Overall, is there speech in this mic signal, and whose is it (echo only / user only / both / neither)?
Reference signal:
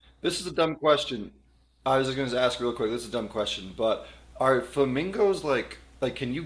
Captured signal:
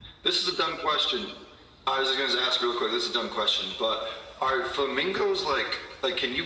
echo only